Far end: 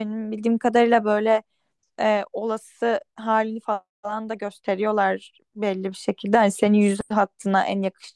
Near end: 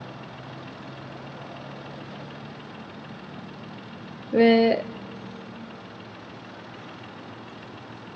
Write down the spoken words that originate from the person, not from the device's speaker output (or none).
ve